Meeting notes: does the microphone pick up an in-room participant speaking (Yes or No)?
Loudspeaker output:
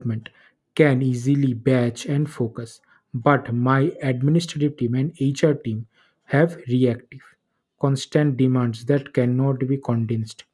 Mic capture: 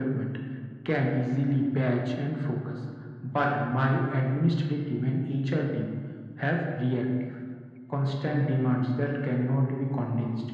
No